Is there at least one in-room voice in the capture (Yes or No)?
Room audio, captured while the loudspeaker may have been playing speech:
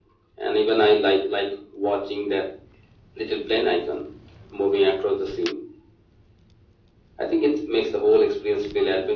No